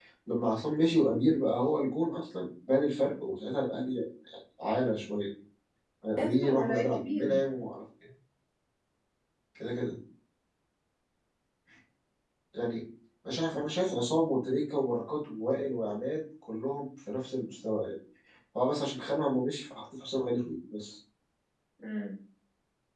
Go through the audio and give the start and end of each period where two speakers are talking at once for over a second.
6.2-7.4

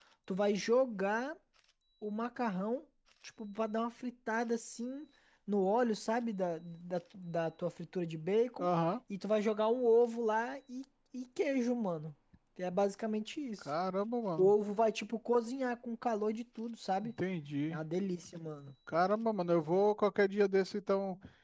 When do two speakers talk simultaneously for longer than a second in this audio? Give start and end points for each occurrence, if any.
none

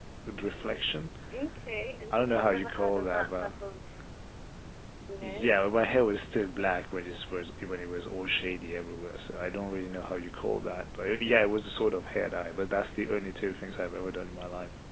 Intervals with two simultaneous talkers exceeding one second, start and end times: 2.1-3.5

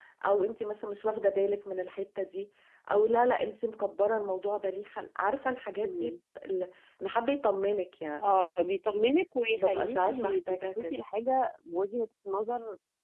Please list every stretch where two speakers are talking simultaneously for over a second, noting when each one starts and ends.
9.5-10.9

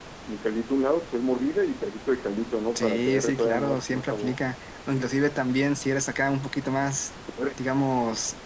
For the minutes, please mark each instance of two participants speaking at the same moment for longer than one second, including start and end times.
2.8-4.4

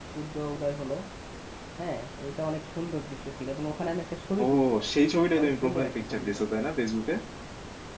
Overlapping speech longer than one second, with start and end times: 5.4-6.7

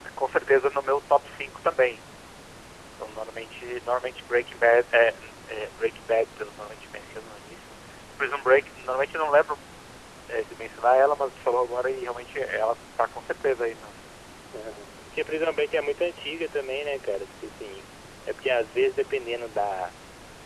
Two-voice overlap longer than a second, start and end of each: none

